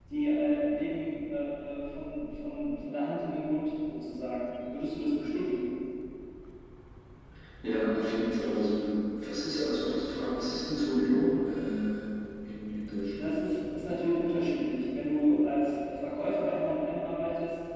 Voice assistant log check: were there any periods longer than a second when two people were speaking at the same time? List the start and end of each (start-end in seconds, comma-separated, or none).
none